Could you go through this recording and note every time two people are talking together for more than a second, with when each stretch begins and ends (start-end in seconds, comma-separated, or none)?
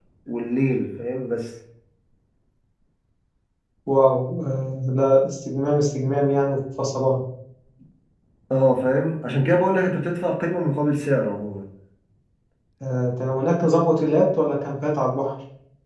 none